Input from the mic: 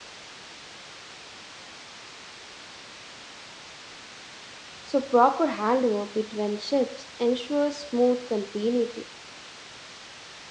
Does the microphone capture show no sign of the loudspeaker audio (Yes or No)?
Yes